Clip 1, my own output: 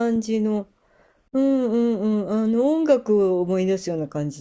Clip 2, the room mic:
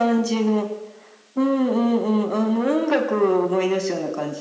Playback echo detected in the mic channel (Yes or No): Yes